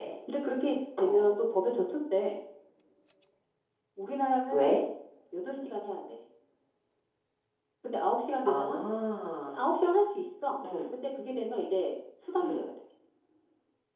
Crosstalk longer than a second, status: none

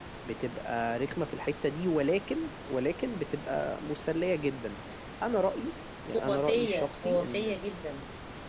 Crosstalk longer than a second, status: present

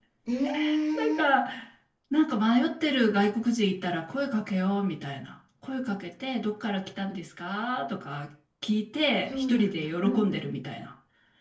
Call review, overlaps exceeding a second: present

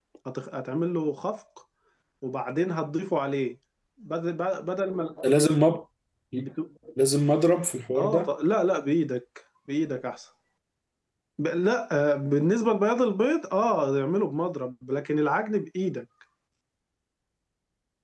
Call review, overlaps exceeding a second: none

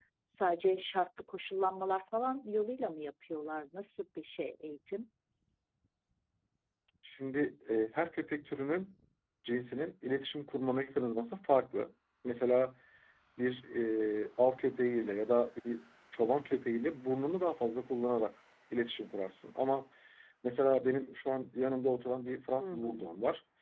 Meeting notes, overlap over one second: none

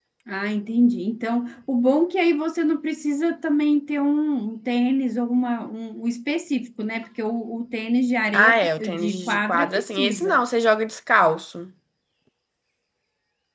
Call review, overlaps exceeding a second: present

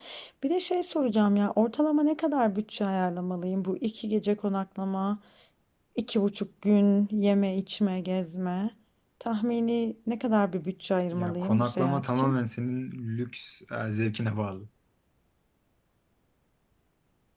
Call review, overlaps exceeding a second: present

